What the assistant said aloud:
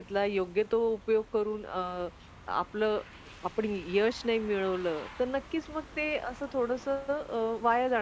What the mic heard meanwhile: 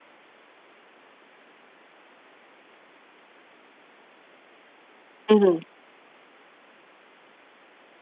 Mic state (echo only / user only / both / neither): user only